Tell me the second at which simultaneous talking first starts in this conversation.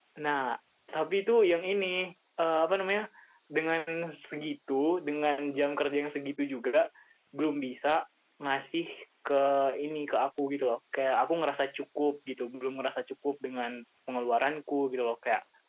none

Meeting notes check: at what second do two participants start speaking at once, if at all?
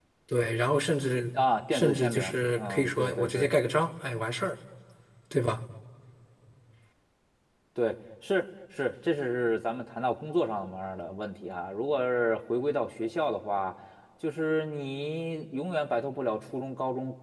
1.7 s

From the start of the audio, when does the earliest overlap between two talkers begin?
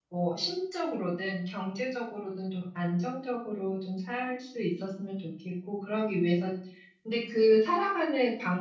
none

